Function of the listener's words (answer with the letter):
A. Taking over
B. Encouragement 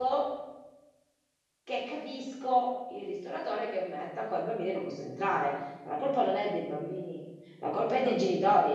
B